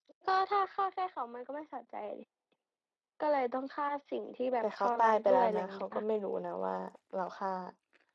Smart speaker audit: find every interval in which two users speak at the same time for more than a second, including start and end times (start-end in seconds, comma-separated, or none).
4.6-6.0